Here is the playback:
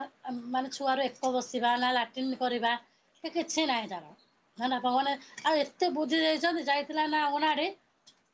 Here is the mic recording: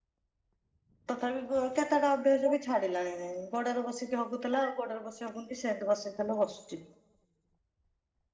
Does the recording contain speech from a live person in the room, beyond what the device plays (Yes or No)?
Yes